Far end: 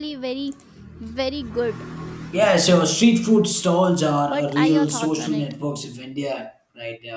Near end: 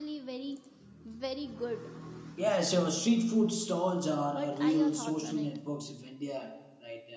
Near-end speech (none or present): none